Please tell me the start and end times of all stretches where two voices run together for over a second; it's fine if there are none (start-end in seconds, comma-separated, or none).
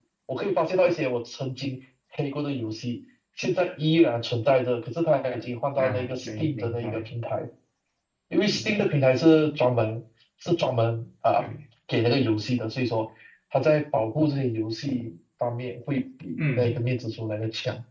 5.8-7.1